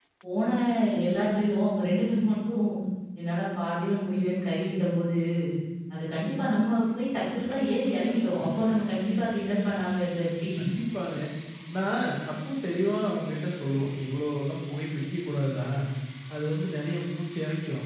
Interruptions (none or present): none